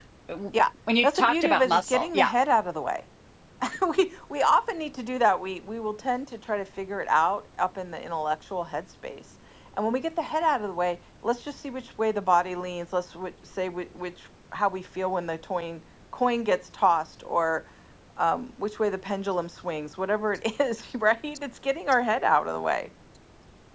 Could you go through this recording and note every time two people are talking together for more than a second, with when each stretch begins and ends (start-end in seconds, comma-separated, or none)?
1.0-2.3